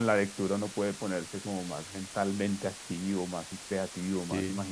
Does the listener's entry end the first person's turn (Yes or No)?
Yes